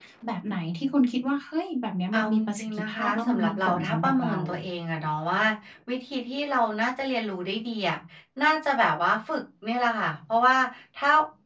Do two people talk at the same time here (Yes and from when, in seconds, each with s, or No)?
Yes, from 2.1 s